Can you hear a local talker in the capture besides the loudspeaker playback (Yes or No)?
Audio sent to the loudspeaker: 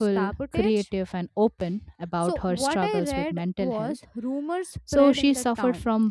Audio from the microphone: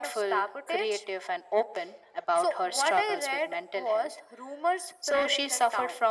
No